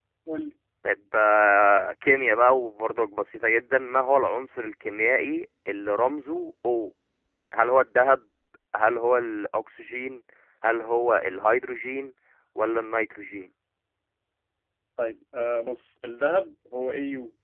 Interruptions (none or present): none